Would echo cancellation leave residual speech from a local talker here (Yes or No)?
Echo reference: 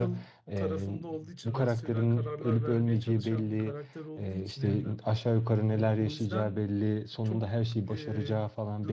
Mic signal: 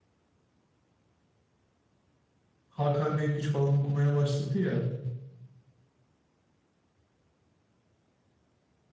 Yes